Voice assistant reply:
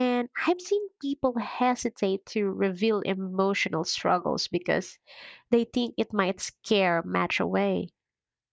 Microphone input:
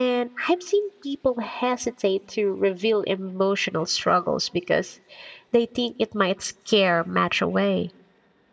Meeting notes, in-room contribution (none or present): none